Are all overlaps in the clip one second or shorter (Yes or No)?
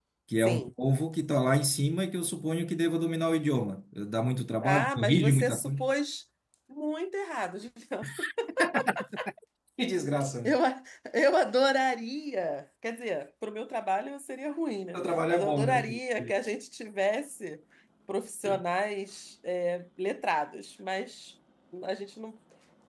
No